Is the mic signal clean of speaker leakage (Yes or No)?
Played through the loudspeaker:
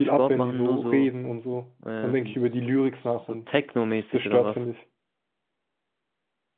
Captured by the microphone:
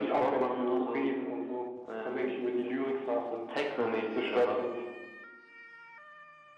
No